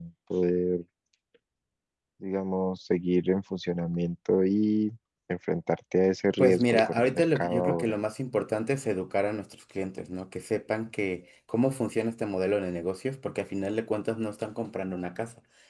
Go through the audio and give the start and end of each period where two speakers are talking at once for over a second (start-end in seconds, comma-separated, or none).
6.4-8.0